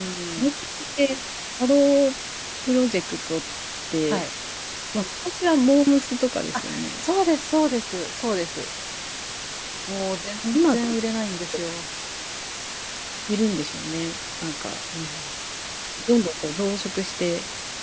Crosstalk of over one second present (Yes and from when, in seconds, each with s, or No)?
No